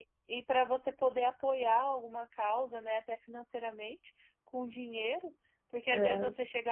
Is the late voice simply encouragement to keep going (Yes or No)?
Yes